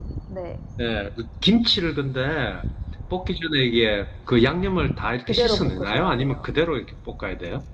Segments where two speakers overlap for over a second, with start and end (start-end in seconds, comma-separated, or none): 5.2-6.5